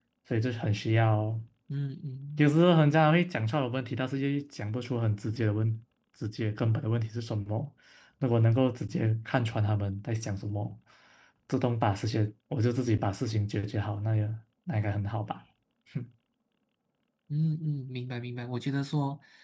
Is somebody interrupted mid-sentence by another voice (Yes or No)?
No